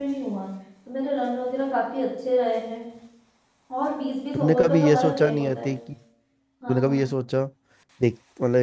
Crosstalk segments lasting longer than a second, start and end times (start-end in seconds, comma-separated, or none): 4.3-5.7